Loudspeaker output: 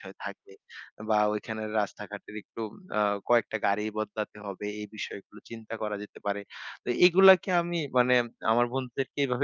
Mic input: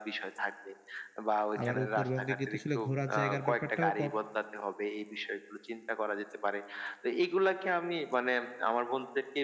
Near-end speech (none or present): present